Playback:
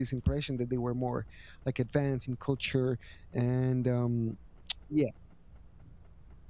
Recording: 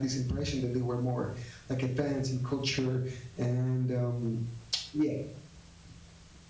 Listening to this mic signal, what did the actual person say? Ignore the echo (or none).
none